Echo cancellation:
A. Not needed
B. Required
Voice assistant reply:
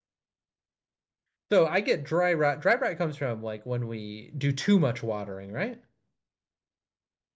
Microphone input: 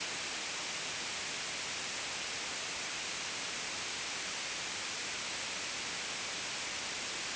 A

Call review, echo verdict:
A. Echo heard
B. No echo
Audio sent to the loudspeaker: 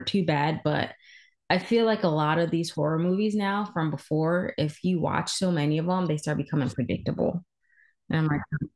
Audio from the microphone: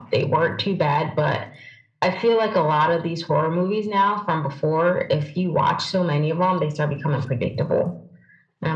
A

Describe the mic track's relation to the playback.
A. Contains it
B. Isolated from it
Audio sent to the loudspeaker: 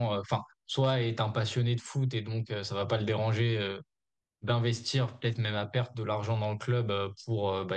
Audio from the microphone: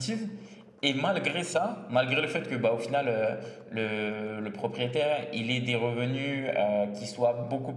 B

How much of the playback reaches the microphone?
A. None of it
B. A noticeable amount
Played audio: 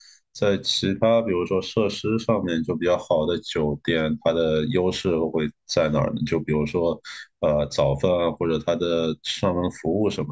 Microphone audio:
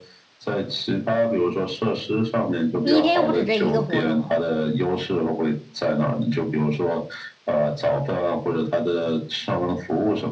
B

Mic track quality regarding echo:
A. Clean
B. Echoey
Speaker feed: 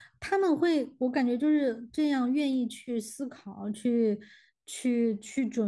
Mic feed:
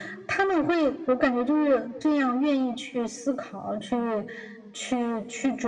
B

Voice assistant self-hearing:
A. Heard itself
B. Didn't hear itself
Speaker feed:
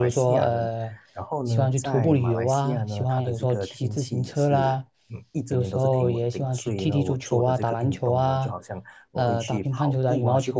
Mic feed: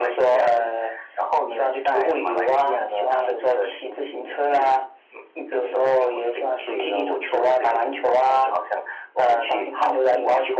A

